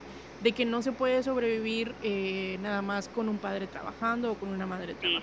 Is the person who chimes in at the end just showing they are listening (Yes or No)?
No